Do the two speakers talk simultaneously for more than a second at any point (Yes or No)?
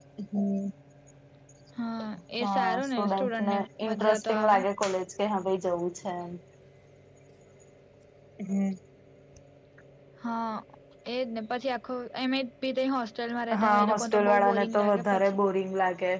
Yes